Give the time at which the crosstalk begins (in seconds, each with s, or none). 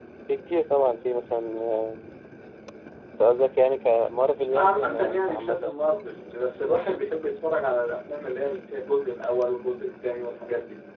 4.5 s